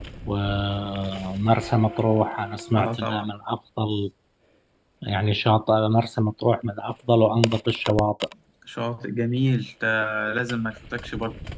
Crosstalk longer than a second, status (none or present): none